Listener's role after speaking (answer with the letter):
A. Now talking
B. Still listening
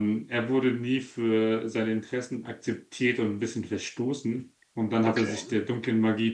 B